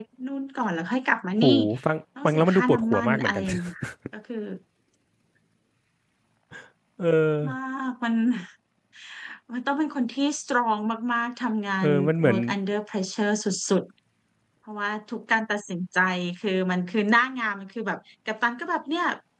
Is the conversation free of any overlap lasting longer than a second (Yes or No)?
No